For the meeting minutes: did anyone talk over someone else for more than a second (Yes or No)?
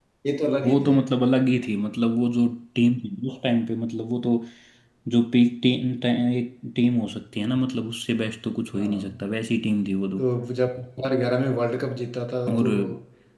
No